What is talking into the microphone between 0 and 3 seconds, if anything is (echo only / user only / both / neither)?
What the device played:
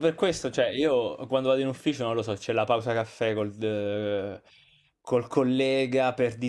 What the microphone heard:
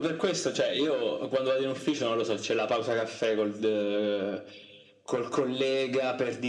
echo only